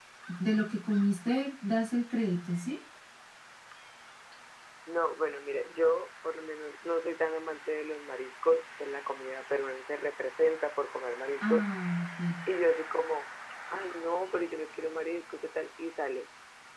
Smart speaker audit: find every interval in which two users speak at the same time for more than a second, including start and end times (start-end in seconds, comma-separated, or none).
none